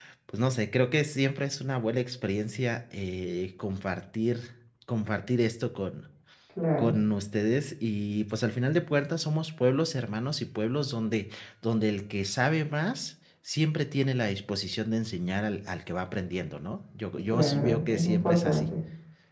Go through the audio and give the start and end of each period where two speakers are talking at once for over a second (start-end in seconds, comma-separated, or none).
17.3-18.7